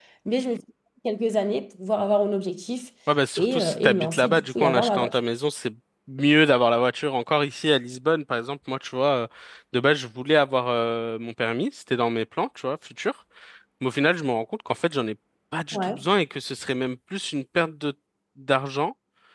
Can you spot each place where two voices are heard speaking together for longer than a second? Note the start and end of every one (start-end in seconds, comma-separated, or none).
3.4-5.2